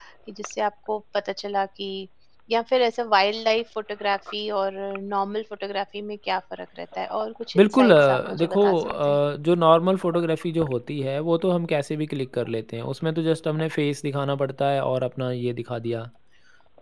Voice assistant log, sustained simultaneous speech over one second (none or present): present